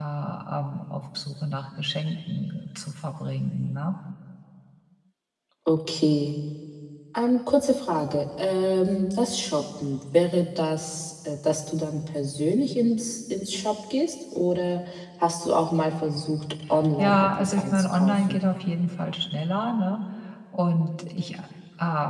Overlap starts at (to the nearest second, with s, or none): 17 s